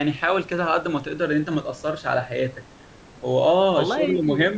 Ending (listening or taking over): listening